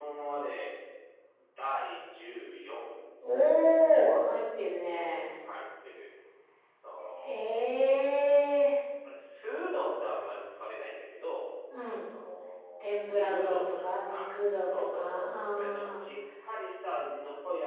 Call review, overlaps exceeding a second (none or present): present